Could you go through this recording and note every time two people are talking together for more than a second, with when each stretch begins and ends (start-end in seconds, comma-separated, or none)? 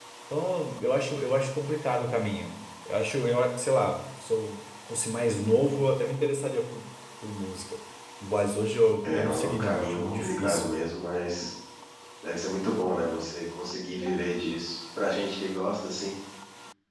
9.0-10.7